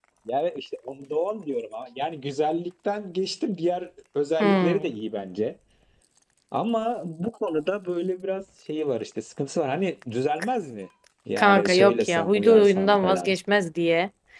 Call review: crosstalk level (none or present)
present